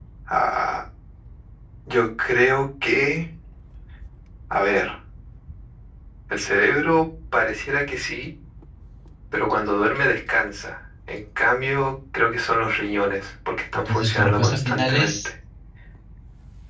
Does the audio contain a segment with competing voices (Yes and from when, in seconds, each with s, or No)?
Yes, from 13.8 s